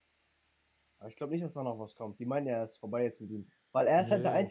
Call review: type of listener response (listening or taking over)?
listening